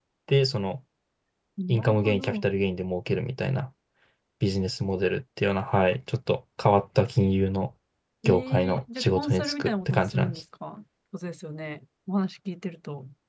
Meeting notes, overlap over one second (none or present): present